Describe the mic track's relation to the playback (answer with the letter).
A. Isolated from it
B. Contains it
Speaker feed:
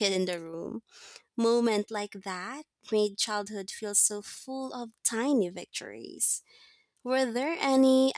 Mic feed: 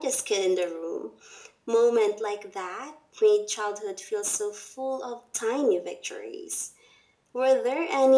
B